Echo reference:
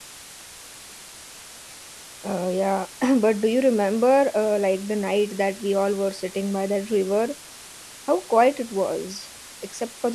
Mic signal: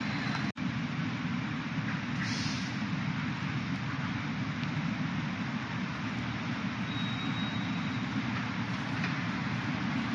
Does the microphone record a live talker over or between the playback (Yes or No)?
No